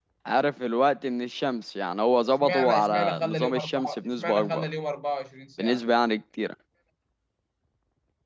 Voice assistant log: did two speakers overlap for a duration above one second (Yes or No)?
Yes